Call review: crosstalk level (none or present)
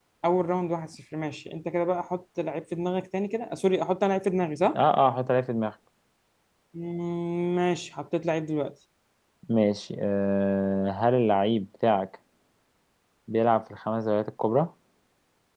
none